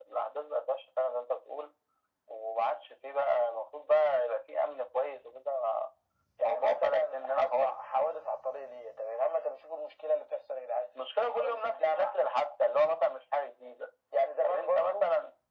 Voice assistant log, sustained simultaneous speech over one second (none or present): present